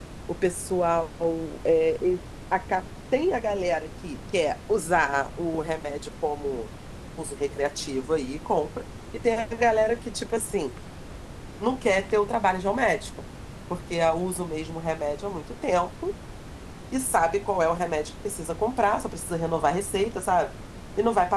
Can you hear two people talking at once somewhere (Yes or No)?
No